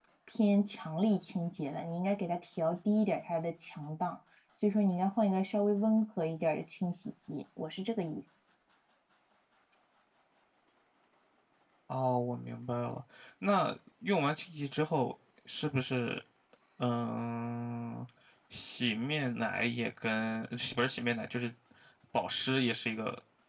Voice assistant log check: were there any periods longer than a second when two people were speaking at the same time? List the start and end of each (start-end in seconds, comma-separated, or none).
none